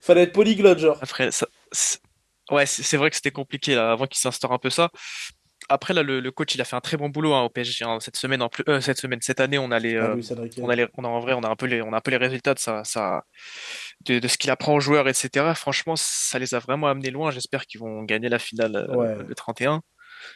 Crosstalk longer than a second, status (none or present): none